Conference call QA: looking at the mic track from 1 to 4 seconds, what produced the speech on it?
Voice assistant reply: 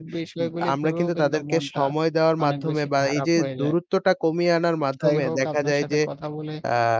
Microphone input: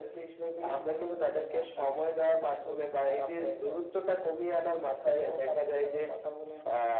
echo only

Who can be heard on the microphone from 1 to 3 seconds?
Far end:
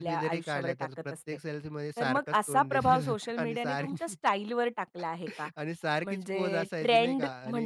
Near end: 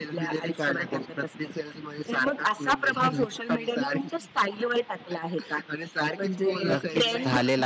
echo only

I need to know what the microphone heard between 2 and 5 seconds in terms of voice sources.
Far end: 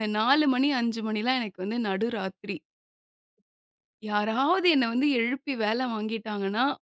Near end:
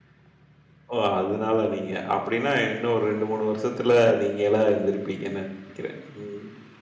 user only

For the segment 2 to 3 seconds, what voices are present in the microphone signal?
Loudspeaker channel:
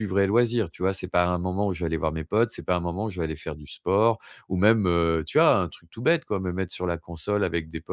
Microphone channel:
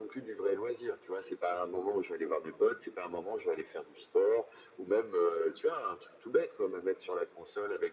echo only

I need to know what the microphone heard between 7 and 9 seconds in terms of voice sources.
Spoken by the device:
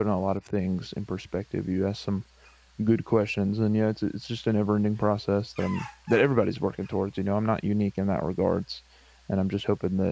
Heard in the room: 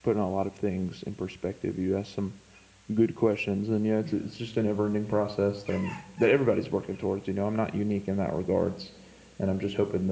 echo only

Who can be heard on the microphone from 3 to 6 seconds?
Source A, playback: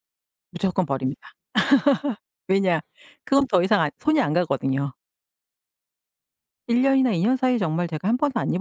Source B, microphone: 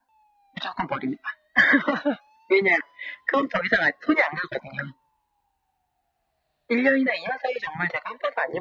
echo only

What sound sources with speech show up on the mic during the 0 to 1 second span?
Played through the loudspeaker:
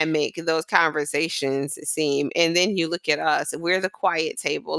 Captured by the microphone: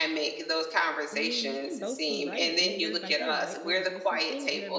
echo only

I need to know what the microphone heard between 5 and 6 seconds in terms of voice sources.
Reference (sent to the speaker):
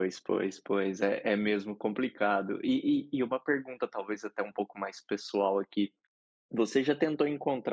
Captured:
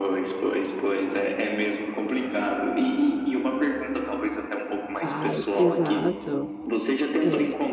both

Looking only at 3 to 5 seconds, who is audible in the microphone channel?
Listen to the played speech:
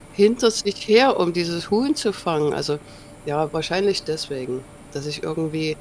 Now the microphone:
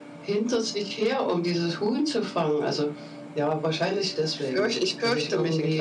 both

